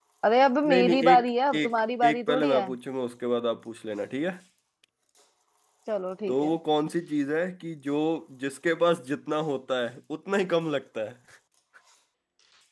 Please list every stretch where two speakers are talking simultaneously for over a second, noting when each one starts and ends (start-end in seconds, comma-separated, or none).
0.7-2.6